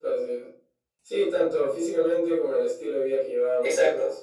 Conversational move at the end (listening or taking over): taking over